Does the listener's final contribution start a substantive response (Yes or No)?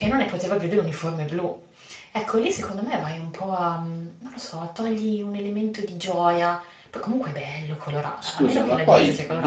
Yes